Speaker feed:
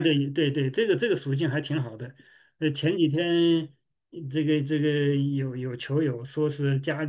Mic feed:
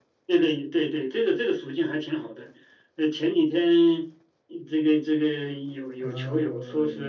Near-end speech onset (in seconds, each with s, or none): 6.0 s